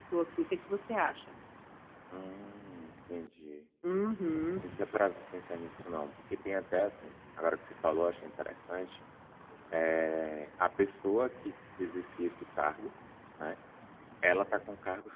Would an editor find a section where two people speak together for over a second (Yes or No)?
No